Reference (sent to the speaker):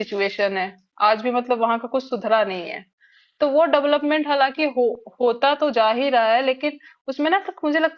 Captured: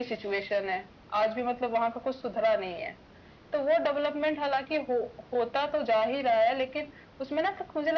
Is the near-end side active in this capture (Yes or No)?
No